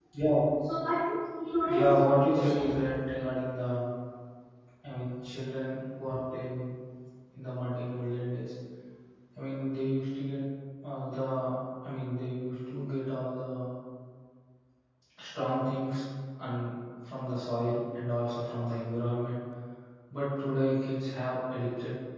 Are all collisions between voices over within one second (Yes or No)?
No